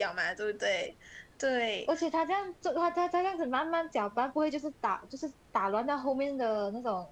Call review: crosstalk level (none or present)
none